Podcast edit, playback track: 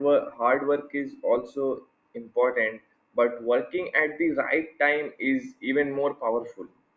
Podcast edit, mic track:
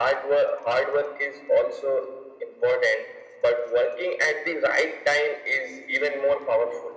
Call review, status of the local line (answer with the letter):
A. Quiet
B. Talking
A